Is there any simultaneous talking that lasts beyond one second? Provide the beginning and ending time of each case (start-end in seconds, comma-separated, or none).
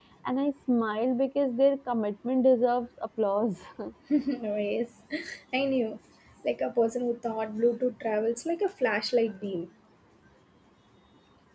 none